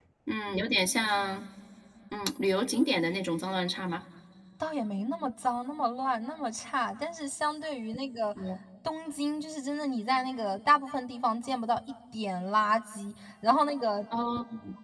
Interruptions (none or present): none